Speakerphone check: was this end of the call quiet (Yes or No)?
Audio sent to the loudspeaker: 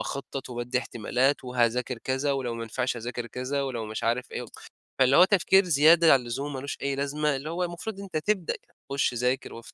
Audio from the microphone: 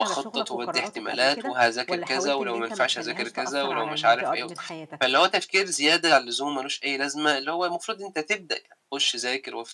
No